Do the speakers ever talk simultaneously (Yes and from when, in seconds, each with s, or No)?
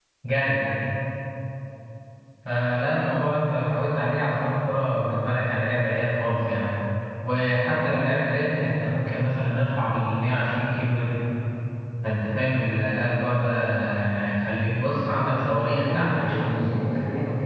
Yes, from 15.0 s